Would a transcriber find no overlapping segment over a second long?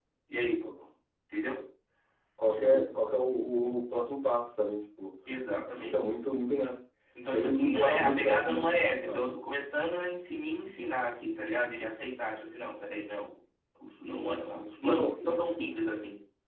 No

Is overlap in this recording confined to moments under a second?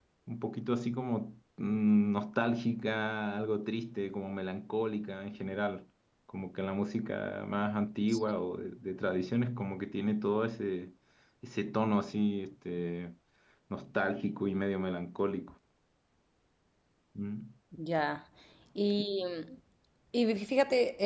Yes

